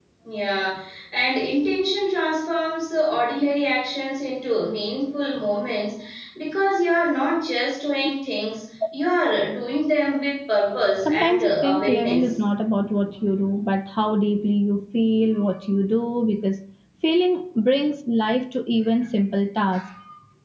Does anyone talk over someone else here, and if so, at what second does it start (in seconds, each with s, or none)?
11.1 s